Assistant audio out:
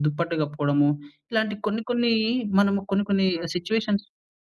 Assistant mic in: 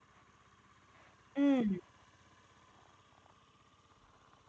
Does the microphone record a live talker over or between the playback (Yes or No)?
Yes